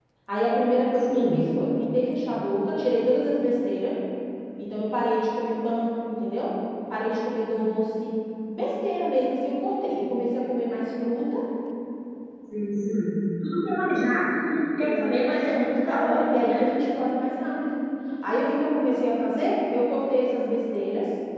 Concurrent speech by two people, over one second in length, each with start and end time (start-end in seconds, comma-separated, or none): 14.8-16.6